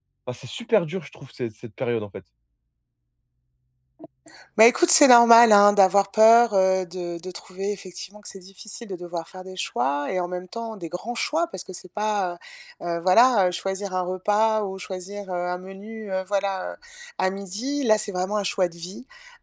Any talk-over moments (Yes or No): No